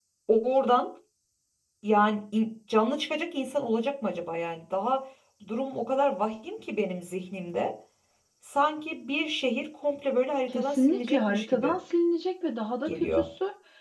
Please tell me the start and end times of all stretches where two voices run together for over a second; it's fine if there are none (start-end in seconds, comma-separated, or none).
10.5-11.7